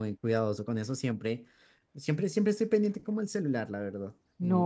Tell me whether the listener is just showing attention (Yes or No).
No